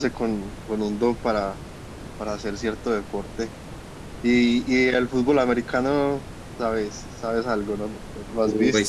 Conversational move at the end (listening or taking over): taking over